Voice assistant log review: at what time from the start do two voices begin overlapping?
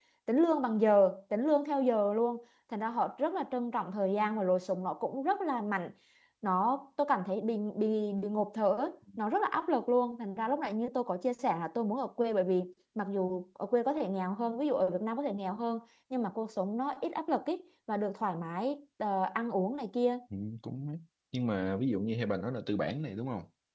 none

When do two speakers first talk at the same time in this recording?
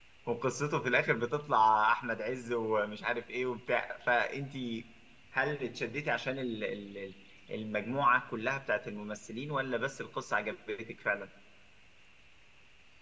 none

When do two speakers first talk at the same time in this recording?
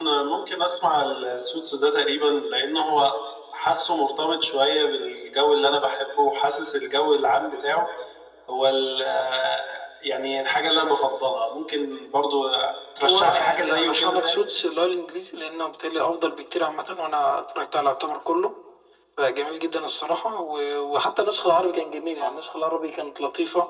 13.0 s

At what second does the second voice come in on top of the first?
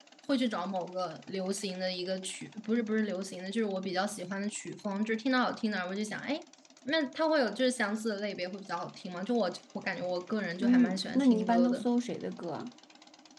10.6 s

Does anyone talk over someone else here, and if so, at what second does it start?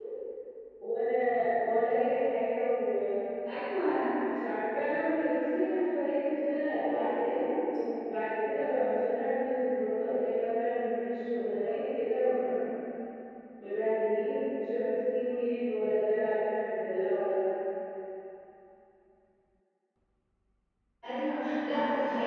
none

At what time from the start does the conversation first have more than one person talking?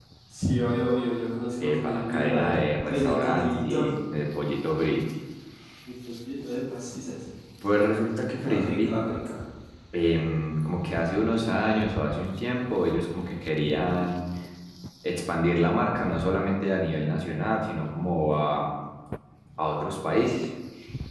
1.8 s

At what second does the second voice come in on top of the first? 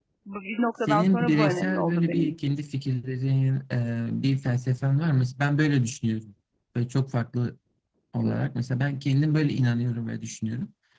0.9 s

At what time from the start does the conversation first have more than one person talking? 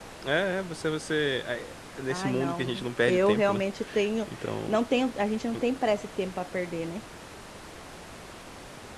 2.1 s

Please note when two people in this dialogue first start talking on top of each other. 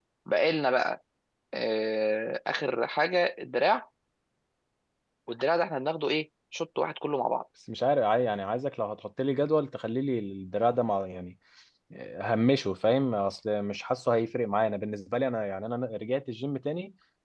none

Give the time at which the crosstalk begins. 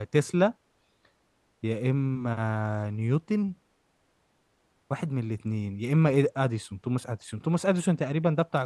none

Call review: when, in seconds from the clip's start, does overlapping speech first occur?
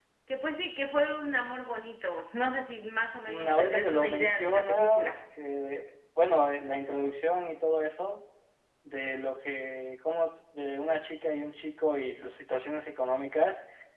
3.2 s

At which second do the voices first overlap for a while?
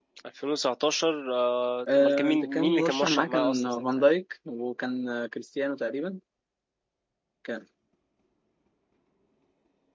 1.9 s

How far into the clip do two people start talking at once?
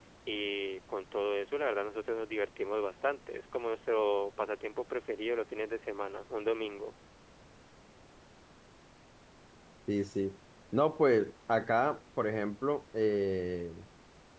none

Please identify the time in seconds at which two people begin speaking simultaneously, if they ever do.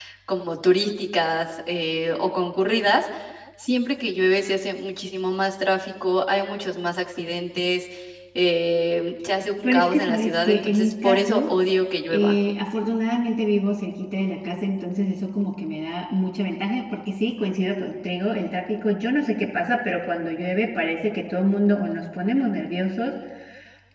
9.6 s

